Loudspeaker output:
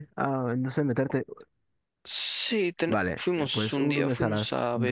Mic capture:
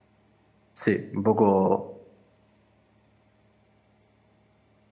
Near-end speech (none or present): present